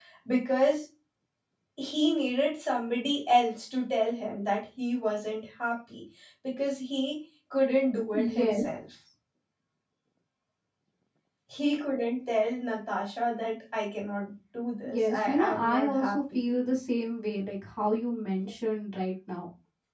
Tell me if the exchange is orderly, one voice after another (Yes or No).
No